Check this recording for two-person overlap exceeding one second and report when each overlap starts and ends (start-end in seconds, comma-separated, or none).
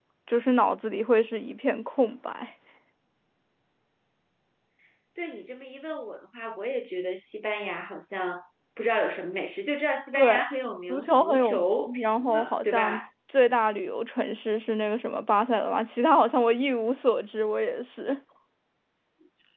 10.9-13.0